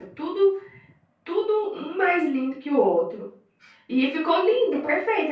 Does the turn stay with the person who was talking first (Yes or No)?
Yes